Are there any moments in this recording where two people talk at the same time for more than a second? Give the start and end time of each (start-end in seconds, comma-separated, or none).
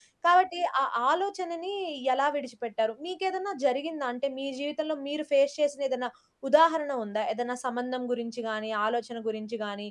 none